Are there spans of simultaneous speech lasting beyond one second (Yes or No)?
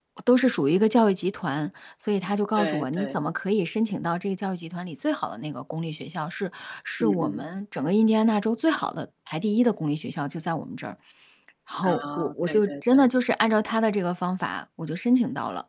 Yes